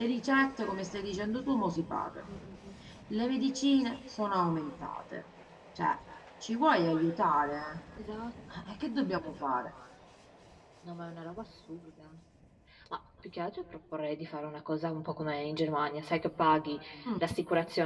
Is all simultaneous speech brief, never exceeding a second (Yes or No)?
Yes